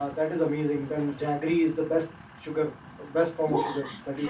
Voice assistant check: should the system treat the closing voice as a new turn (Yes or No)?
Yes